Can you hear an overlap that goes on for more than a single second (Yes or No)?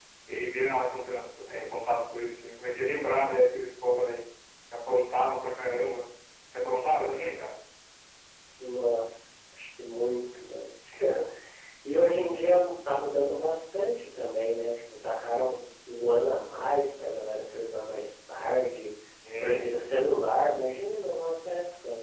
No